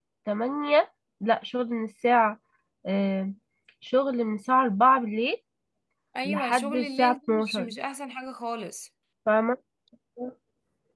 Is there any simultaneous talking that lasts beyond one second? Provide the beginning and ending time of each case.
6.2-7.7

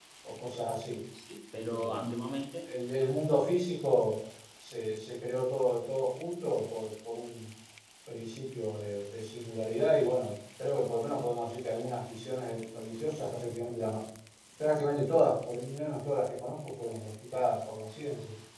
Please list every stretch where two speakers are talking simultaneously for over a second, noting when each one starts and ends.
none

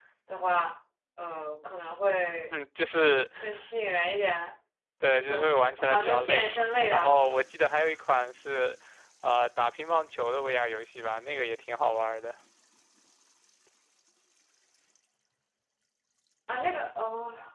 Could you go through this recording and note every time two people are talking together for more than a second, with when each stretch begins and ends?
5.2-7.3

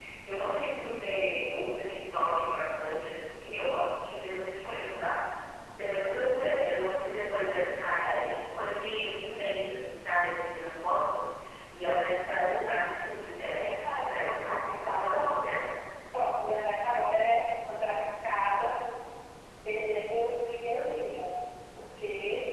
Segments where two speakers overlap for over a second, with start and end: 13.4-15.3

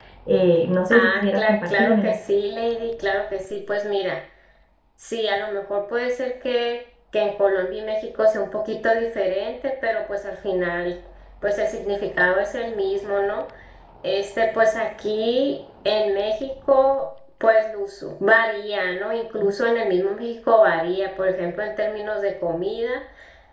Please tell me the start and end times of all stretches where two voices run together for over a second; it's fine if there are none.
0.9-2.1

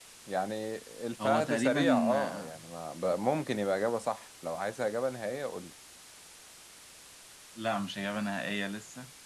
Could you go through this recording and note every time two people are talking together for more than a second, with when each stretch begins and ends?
1.2-2.5

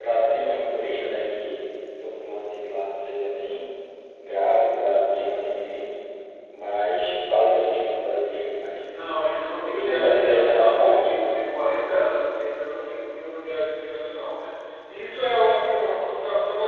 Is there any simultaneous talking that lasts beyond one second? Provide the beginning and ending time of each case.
9.6-11.0

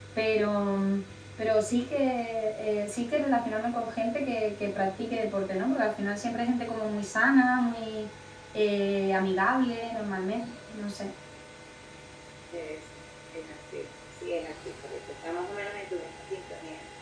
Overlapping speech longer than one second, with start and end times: none

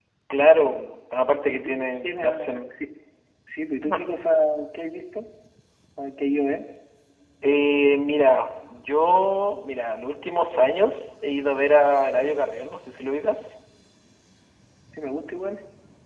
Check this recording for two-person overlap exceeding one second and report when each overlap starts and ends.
1.3-2.6

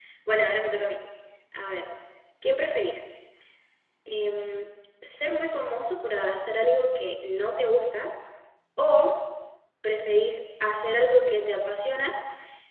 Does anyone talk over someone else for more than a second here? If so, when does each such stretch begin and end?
none

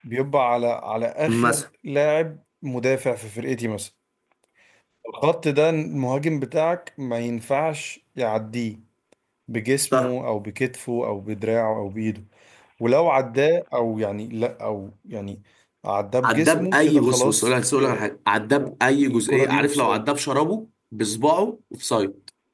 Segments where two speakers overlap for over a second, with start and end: 16.2-18.1, 18.5-20.0

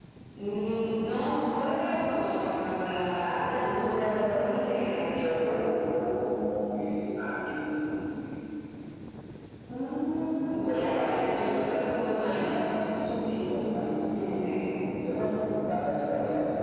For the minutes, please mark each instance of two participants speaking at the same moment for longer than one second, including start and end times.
3.5-5.4, 10.7-12.5

